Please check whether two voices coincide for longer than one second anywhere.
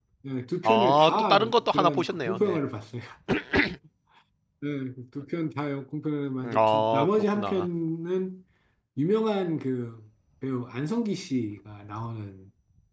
Yes, from 0.6 s

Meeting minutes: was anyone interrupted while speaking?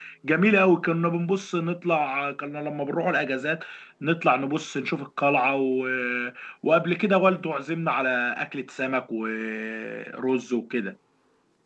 No

